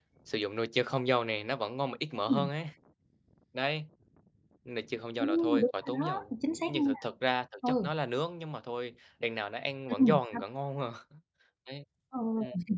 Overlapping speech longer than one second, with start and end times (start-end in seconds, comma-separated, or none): 5.2-6.9